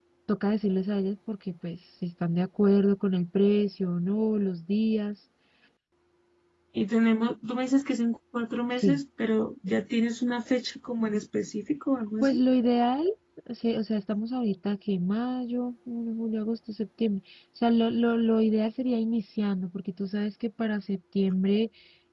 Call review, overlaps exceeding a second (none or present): none